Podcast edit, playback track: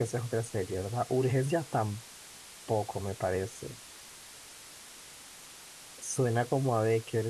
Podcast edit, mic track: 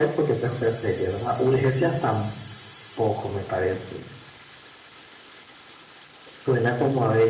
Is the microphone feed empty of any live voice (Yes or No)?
Yes